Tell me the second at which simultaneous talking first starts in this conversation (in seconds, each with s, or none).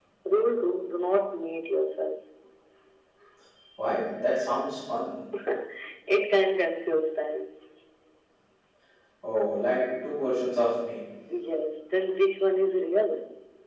none